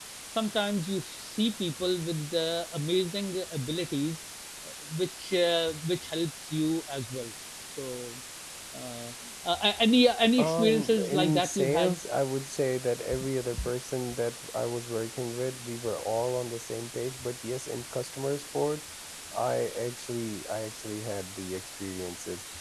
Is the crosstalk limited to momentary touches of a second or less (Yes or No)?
No